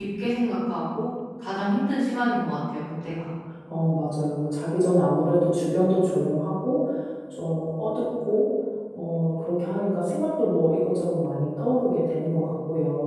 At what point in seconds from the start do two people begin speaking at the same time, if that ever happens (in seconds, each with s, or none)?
none